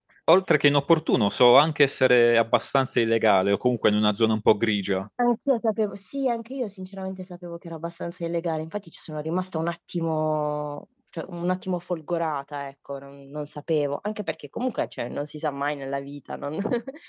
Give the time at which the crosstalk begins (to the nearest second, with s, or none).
none